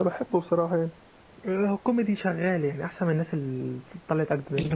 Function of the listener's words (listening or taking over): taking over